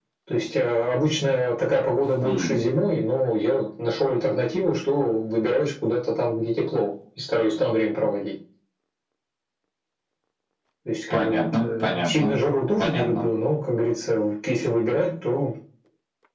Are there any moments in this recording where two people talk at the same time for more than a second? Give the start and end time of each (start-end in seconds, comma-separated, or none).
11.1-12.3